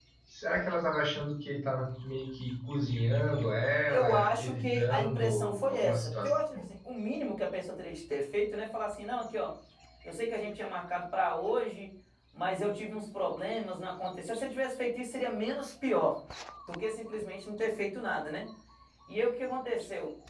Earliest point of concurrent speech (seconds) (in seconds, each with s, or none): 3.9 s